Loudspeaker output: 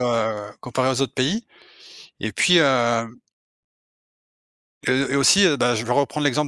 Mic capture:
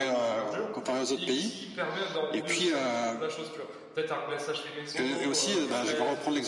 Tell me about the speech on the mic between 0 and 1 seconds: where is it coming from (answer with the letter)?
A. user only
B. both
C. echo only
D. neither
B